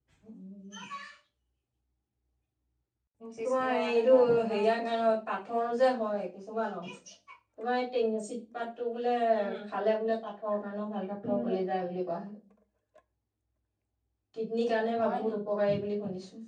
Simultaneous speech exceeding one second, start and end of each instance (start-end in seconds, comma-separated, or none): 3.4-4.7